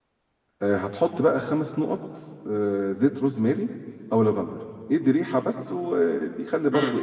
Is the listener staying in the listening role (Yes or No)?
No